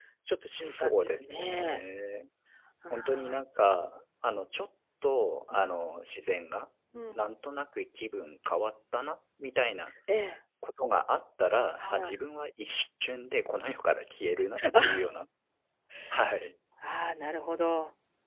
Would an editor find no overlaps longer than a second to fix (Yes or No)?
No